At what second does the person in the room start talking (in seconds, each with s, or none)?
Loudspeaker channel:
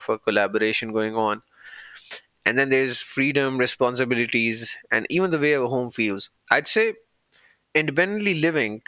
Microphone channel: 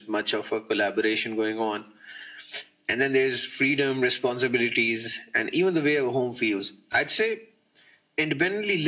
none